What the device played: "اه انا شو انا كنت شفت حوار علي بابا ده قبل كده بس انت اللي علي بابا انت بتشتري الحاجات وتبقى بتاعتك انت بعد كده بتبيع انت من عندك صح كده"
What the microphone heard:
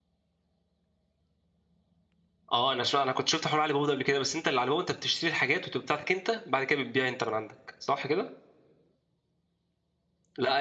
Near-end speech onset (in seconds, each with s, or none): none